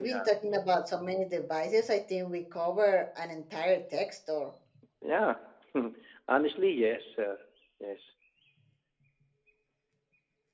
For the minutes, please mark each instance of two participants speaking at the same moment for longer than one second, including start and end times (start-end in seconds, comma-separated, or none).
none